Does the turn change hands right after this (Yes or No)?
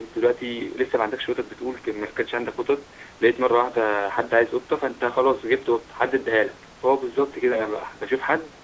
No